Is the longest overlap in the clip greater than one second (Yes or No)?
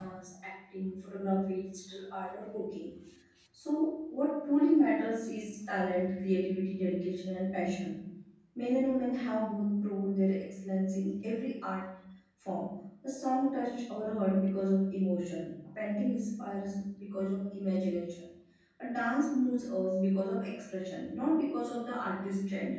No